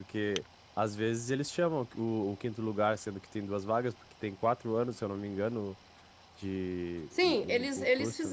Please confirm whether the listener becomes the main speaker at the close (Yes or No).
Yes